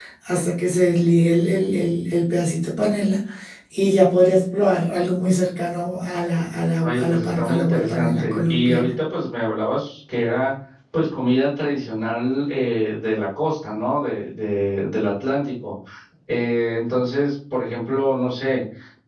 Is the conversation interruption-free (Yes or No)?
No